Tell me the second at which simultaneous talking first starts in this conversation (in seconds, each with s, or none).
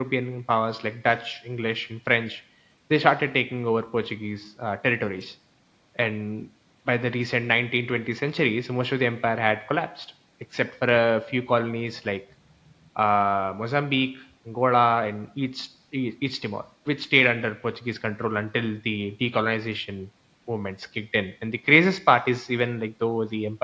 none